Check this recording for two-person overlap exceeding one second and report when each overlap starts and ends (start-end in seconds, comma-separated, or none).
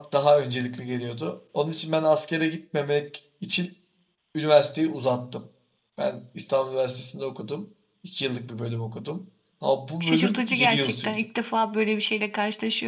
10.0-11.2